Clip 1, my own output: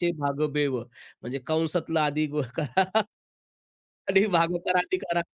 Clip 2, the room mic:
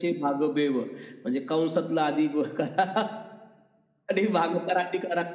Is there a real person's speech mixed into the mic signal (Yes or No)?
No